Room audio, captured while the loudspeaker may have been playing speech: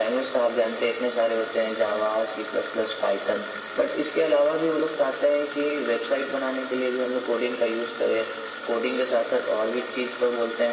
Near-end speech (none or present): none